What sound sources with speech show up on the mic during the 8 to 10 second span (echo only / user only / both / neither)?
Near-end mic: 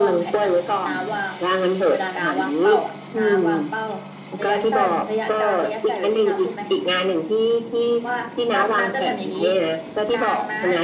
both